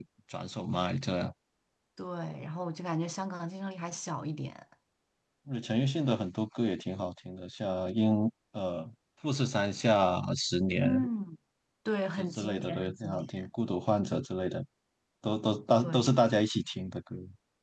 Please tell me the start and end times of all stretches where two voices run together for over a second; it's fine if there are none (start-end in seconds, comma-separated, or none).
12.2-13.5